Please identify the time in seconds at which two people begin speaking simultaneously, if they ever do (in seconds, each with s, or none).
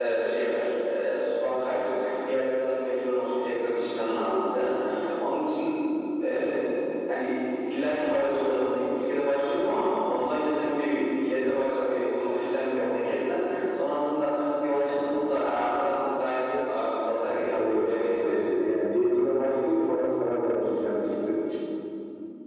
17.2 s